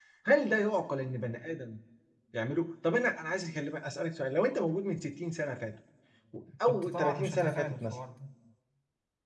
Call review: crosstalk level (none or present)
present